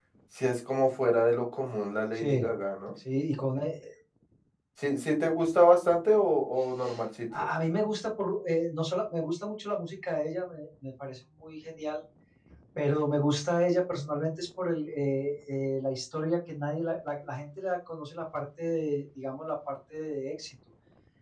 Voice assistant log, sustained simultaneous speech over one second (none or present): none